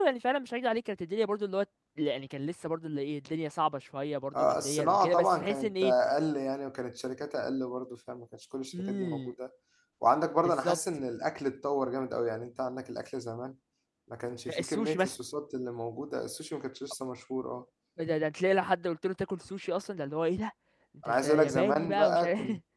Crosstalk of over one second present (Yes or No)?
Yes